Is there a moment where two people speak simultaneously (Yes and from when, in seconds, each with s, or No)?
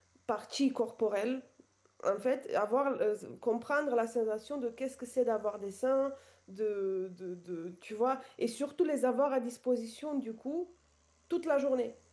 No